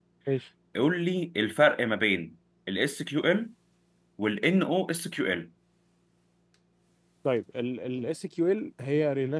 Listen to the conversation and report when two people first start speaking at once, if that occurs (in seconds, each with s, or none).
none